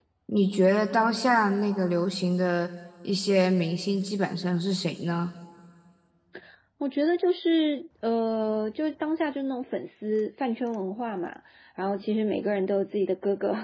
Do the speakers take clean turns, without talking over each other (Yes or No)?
Yes